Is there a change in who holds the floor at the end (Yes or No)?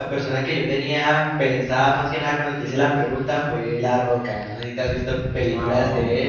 Yes